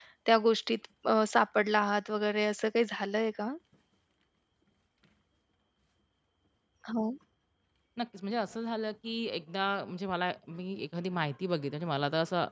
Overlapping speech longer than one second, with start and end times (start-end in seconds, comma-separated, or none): none